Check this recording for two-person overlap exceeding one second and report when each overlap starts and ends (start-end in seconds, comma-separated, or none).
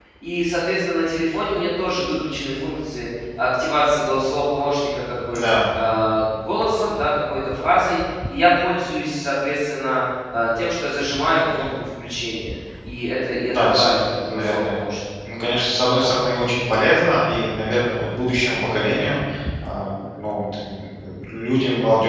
13.5-14.8